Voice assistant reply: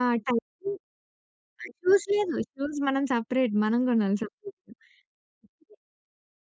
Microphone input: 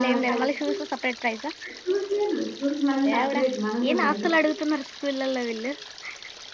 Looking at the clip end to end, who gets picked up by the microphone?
both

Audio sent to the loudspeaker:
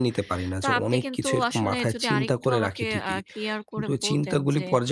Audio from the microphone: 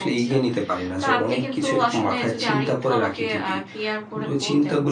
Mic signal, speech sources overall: echo only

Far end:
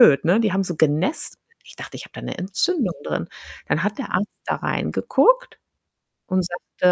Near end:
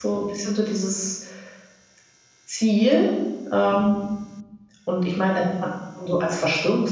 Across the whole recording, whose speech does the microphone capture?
user only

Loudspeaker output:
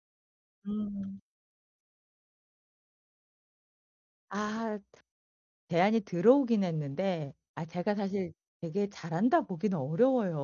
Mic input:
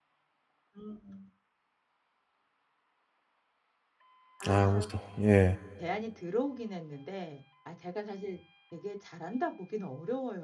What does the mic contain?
both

